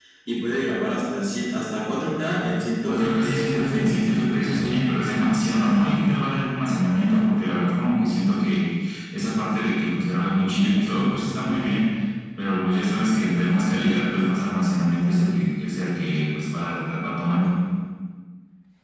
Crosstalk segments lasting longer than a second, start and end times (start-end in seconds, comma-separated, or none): 2.8-4.1